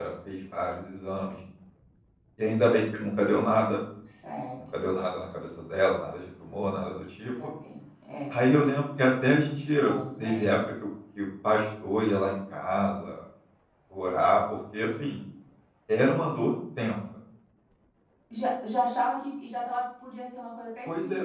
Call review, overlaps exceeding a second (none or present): none